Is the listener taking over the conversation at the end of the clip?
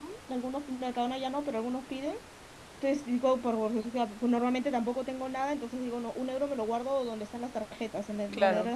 No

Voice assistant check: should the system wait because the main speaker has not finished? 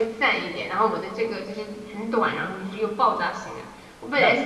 Yes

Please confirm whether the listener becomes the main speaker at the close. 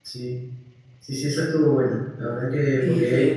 Yes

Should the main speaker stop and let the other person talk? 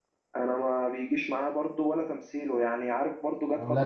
No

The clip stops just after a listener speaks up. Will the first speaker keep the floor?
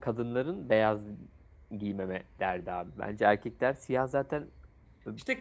No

